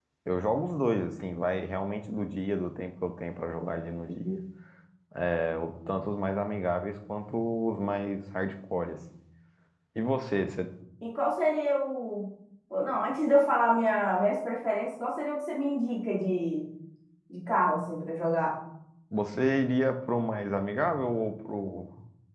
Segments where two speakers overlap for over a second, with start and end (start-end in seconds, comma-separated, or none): none